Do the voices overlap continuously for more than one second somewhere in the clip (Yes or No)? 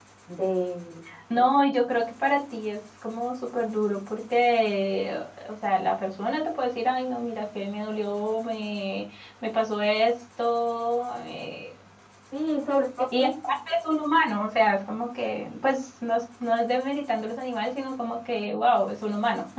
No